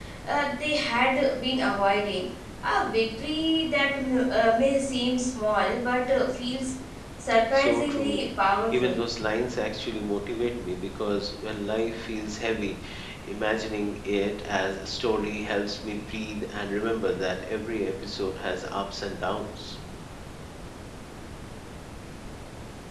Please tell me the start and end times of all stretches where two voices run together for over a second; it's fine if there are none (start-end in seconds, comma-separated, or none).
7.5-9.0